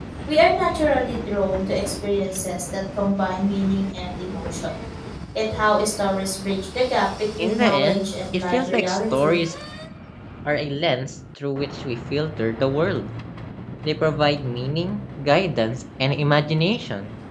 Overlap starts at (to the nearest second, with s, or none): 7 s